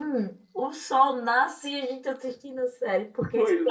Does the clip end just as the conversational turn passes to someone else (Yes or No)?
No